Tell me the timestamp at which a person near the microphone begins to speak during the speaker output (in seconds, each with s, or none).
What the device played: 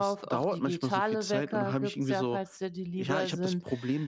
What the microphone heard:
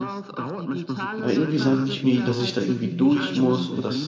1.2 s